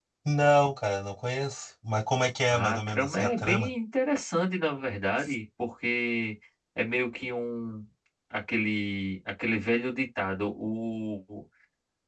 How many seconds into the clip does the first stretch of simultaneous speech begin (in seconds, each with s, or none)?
2.5 s